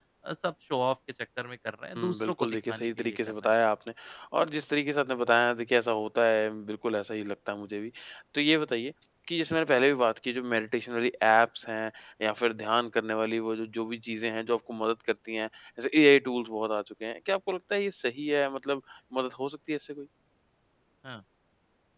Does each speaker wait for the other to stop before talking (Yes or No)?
No